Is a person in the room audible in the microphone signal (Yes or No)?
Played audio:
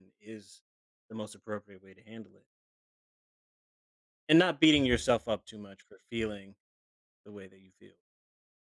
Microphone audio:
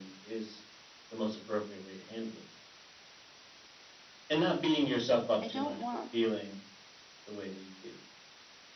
Yes